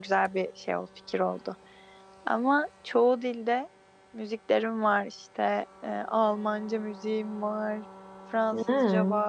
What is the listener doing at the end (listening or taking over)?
listening